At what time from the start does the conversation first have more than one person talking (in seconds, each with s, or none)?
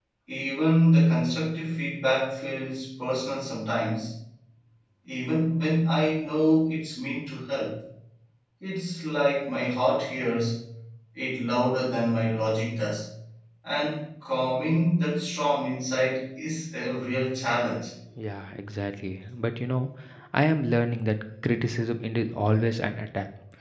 none